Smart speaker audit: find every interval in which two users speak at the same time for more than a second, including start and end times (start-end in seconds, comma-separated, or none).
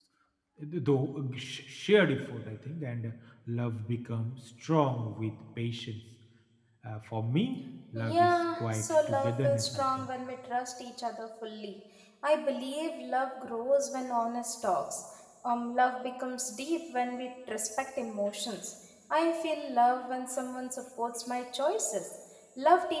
8.0-10.1